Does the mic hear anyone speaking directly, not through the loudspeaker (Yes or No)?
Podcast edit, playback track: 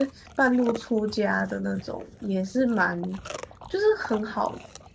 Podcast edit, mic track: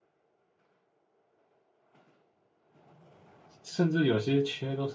Yes